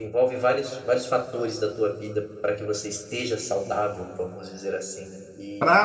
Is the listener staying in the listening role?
No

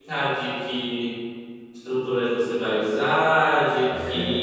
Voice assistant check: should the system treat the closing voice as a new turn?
No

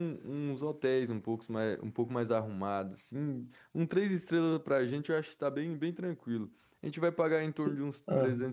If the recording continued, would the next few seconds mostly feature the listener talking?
No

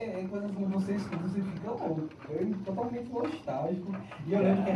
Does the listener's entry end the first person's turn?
No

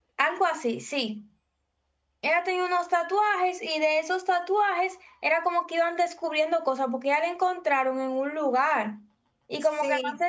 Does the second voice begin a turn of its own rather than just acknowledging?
Yes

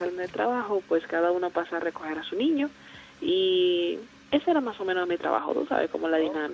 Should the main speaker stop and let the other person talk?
Yes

